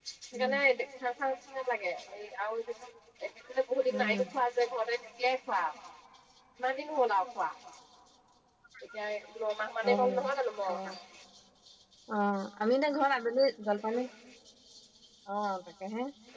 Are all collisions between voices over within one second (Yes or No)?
Yes